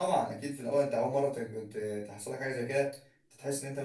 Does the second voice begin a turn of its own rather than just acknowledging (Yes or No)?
No